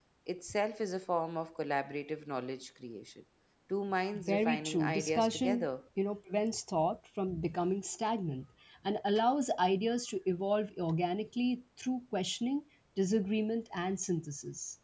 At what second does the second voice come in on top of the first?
4.1 s

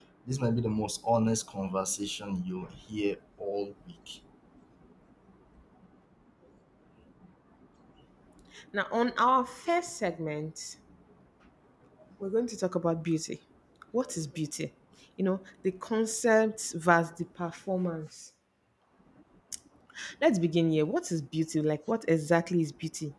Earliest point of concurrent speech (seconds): none

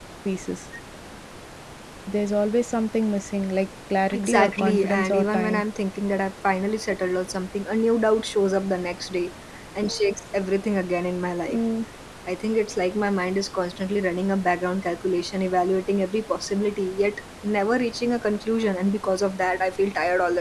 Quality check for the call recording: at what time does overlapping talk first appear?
4.1 s

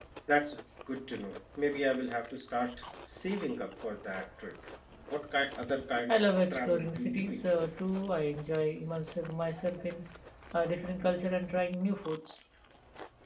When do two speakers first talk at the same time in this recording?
6.1 s

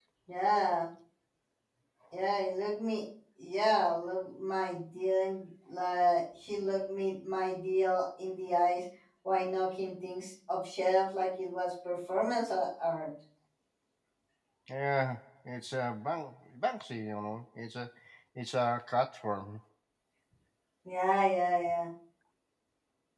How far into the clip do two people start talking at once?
none

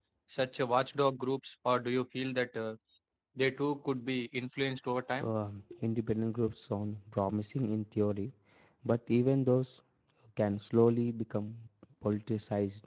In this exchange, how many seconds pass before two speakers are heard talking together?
none

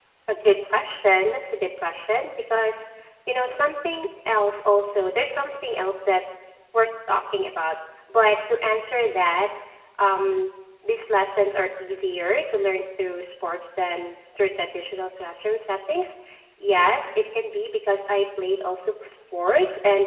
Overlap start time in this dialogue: none

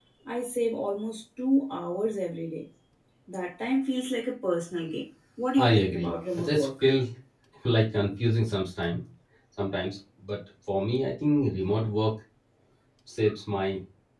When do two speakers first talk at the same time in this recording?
5.6 s

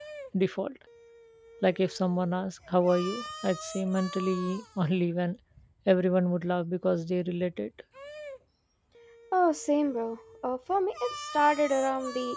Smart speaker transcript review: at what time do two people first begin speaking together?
none

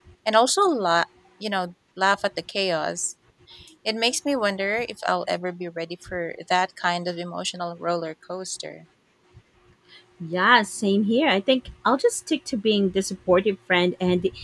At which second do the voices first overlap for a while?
none

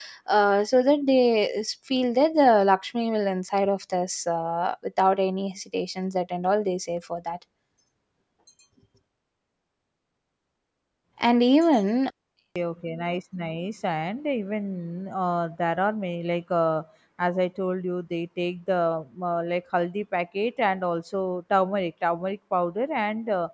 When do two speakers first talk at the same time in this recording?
none

